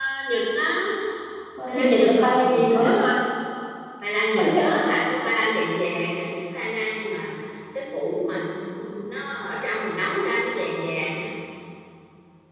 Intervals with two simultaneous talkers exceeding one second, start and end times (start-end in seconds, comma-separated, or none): 1.7-2.9